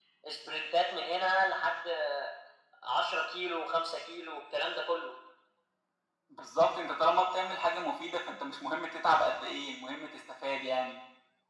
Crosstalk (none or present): none